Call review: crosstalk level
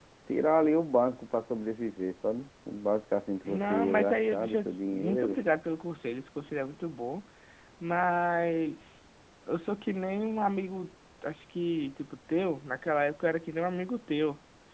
present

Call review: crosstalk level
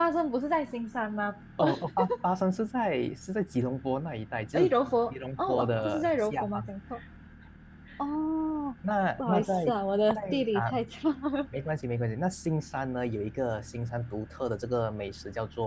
present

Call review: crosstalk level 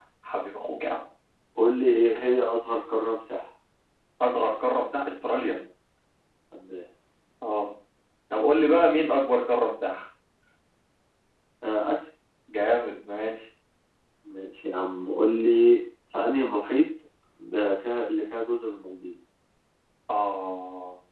none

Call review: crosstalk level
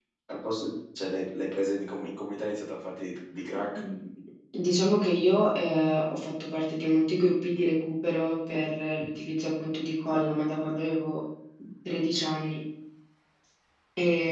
none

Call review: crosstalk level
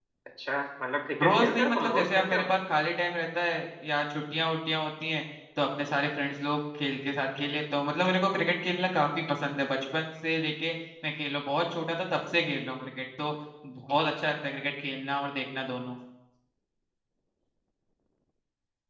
present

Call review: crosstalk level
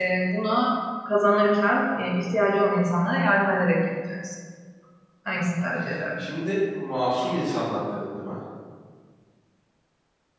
none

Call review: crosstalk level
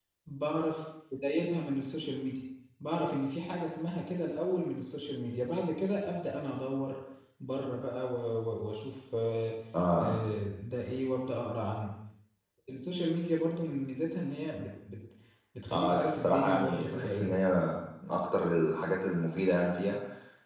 present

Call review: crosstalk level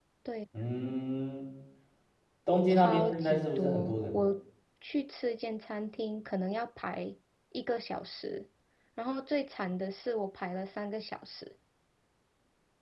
present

